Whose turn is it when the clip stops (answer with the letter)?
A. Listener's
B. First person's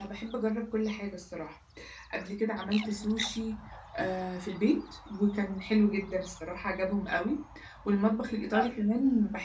B